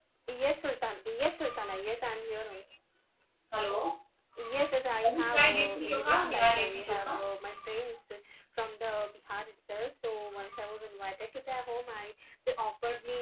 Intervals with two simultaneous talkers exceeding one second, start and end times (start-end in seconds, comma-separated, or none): 5.0-7.2